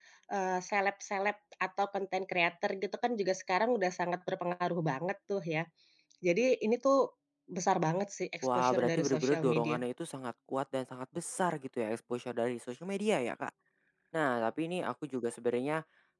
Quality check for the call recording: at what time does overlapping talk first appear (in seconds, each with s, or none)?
8.4 s